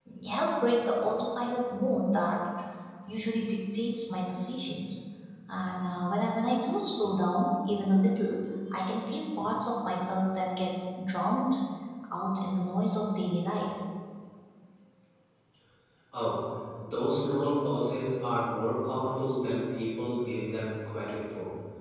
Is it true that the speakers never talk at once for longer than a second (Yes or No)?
Yes